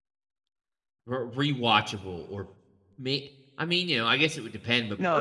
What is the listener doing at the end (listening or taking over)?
taking over